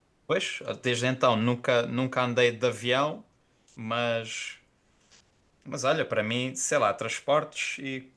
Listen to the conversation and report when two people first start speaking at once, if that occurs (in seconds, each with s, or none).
none